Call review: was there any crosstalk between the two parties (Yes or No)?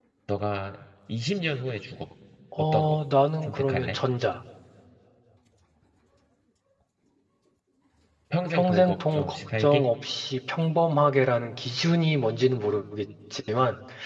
Yes